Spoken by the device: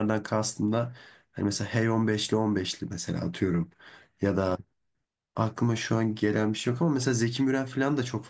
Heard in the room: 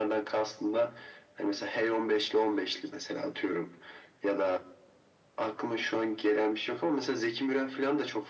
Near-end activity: none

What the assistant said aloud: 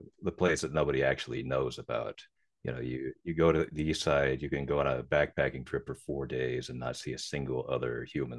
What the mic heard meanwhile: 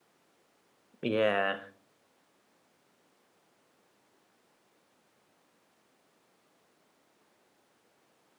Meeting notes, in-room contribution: present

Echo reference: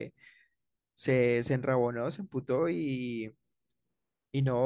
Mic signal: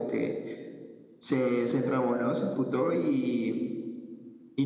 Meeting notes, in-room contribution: none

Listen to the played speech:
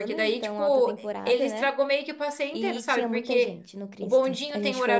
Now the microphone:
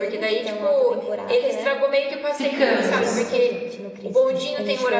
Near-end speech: present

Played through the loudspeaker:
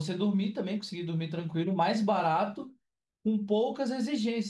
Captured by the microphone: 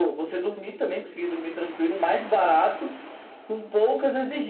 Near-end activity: none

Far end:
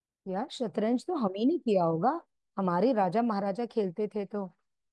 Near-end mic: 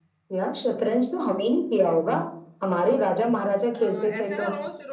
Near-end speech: present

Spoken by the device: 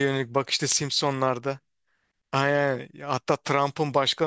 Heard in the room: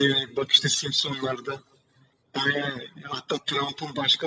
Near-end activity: none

